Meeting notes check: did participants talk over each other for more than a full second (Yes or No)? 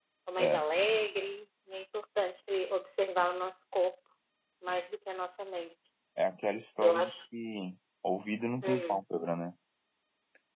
No